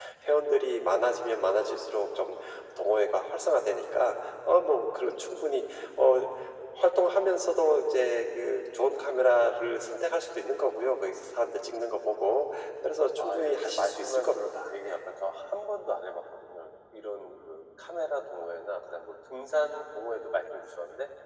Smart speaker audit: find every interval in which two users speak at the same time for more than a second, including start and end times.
13.2-14.9

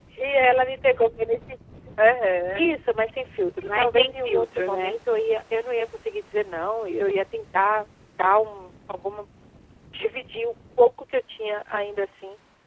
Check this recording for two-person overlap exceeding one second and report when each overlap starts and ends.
3.7-5.0

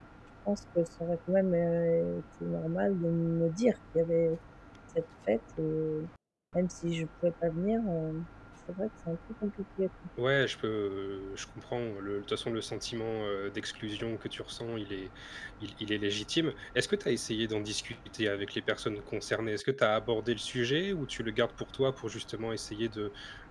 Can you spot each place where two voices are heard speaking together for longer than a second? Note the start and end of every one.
none

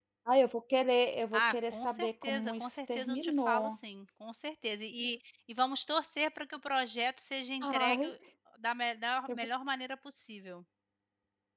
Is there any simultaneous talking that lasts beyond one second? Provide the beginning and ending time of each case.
1.3-3.8

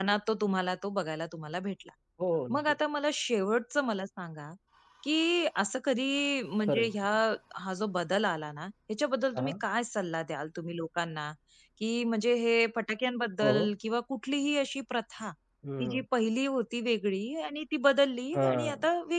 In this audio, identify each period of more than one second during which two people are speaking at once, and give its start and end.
none

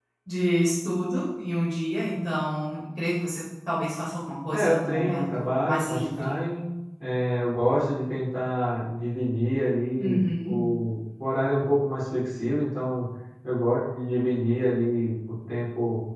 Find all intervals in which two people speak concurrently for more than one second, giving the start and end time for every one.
4.5-6.3

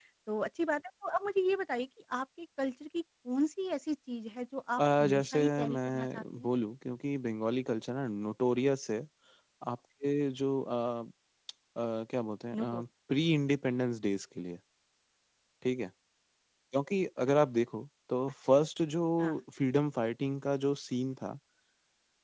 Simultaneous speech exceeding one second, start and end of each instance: 4.8-6.5

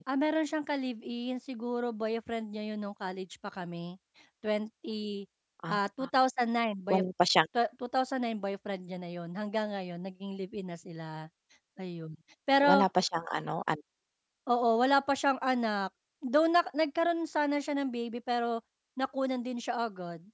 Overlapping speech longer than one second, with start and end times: none

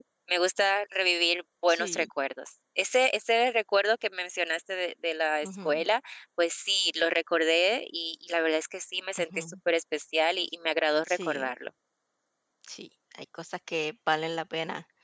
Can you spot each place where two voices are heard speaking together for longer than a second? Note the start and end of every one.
none

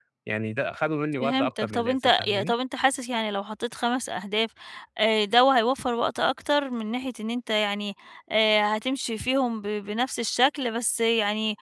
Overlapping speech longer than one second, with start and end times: 1.2-2.5

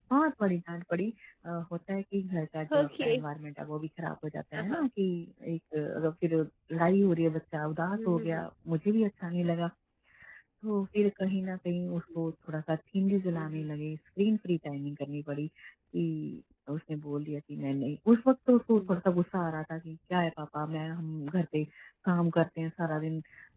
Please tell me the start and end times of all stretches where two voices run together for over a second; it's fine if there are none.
none

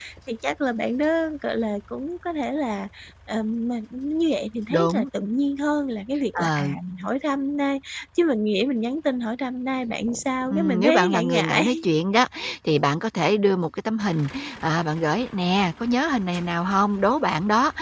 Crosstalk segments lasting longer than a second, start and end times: 10.5-11.8

